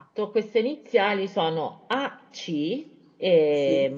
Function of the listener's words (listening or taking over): listening